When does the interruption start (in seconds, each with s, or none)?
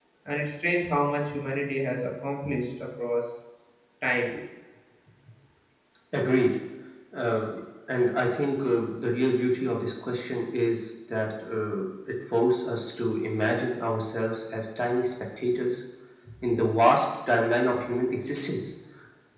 none